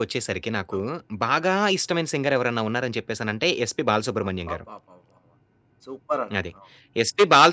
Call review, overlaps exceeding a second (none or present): none